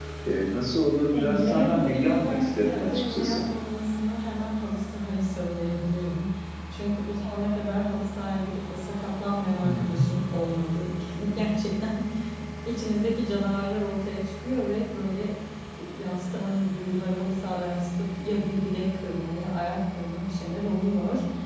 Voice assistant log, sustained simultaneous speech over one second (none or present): present